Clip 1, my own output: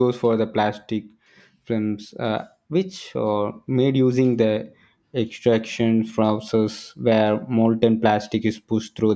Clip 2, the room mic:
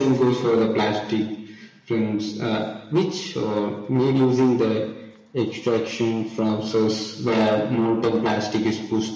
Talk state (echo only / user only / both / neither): echo only